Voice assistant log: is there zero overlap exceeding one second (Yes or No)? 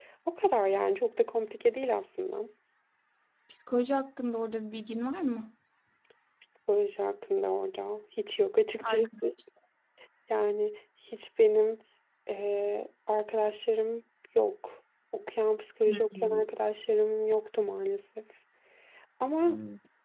Yes